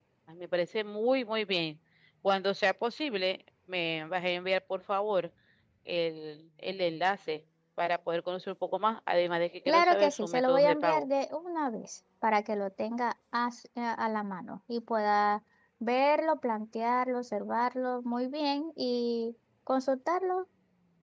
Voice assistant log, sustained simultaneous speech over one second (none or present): present